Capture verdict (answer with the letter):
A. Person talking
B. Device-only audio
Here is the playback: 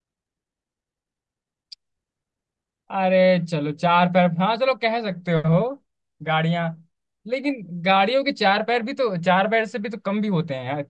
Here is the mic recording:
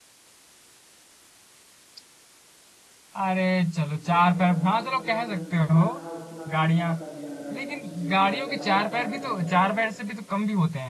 A